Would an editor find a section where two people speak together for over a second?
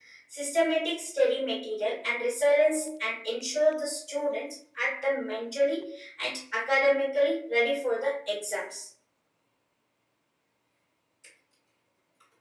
No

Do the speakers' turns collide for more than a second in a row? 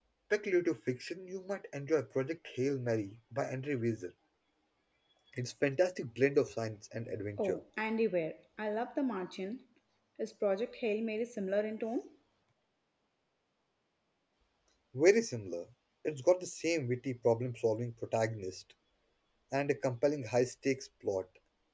No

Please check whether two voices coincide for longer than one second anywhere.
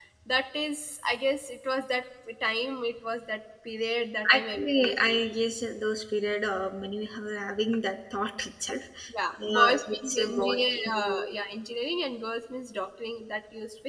Yes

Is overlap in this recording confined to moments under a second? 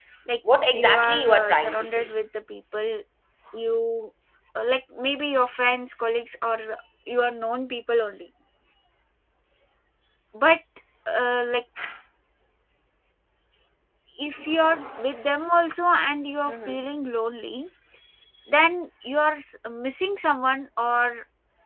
No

